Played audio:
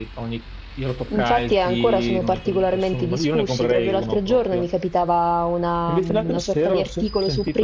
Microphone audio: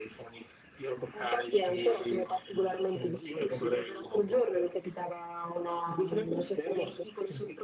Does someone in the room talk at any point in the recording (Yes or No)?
No